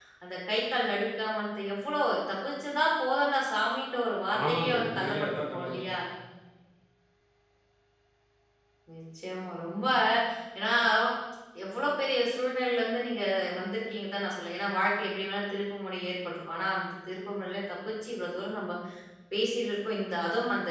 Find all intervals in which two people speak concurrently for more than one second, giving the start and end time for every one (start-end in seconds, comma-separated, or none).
4.5-5.8